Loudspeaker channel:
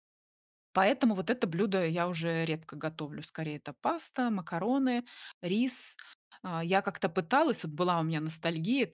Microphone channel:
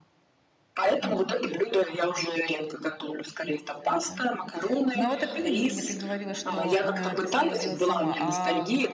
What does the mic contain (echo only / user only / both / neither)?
both